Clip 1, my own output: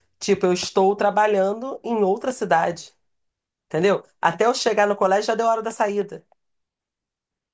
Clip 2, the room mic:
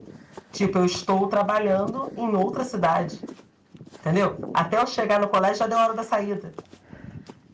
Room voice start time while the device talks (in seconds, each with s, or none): none